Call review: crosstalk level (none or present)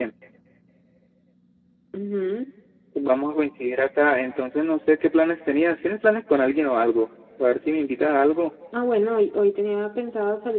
none